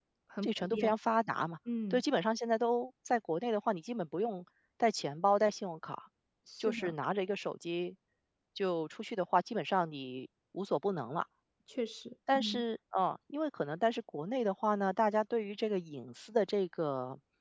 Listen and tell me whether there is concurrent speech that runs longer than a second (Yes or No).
No